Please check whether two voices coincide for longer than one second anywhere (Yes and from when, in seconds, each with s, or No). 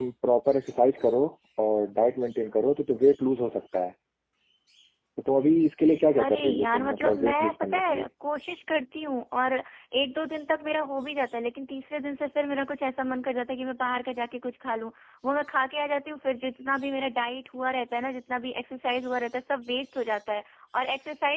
Yes, from 6.2 s